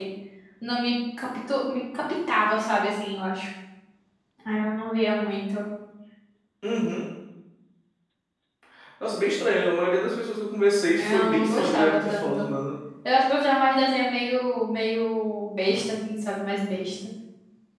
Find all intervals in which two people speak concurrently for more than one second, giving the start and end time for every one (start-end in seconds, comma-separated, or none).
11.0-12.4